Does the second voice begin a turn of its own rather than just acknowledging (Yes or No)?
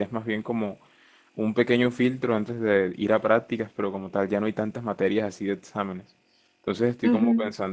No